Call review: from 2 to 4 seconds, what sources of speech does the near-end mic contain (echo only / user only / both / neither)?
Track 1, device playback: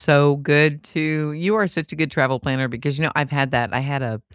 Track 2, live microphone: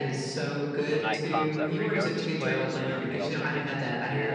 both